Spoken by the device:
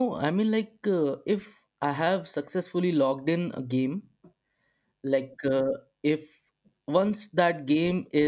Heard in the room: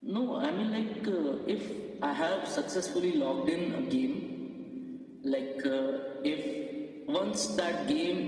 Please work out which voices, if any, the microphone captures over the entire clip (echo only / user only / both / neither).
echo only